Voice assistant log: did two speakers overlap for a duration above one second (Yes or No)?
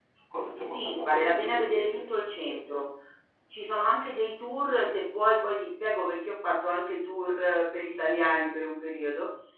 Yes